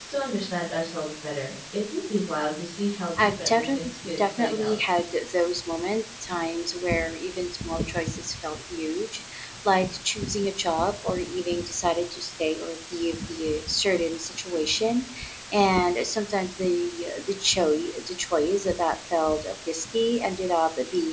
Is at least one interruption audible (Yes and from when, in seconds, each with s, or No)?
Yes, from 3.2 s